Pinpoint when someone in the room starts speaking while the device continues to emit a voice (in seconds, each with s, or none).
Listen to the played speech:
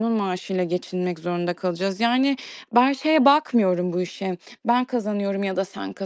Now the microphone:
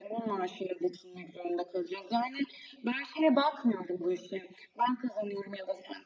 none